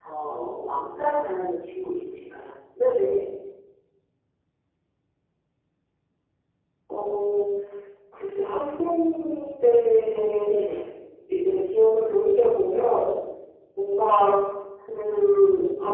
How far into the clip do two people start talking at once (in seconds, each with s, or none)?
none